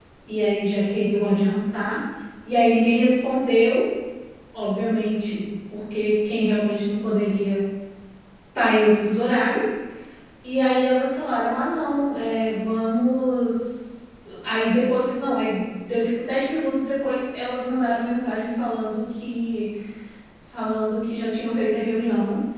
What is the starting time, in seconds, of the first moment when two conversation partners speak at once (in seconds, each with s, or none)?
none